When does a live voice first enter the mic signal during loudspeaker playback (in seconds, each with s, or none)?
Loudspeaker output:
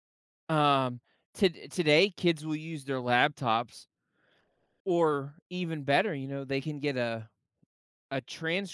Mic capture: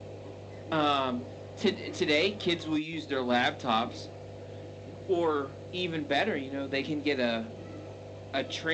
none